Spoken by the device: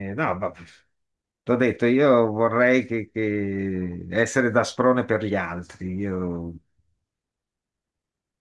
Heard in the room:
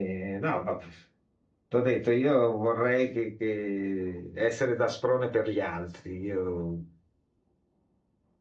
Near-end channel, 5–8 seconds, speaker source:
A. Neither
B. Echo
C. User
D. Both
B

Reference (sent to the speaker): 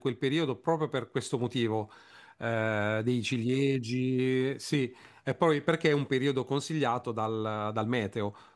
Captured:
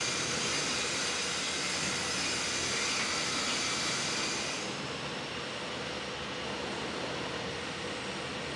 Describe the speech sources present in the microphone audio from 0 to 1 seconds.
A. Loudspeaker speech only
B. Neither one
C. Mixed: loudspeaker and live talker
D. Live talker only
B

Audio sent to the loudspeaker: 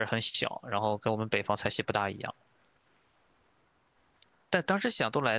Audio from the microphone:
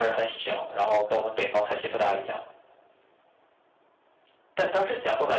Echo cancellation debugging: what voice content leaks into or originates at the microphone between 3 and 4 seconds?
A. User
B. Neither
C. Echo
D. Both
B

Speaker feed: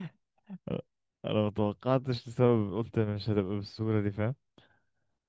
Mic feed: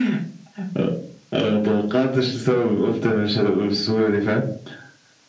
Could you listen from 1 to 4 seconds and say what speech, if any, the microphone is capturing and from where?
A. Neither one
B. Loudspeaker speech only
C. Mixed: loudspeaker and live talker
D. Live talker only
B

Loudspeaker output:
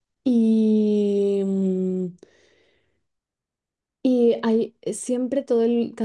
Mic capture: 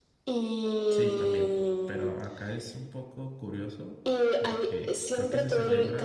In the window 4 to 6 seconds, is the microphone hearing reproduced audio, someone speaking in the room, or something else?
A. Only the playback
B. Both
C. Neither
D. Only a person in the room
B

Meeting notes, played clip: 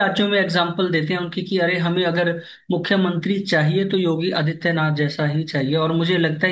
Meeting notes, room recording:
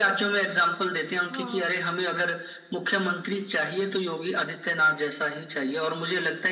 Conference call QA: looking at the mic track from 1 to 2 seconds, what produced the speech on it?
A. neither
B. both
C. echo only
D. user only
B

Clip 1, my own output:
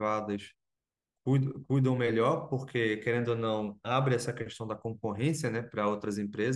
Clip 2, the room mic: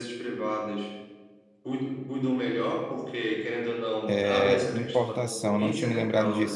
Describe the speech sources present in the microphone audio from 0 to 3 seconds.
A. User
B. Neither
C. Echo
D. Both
C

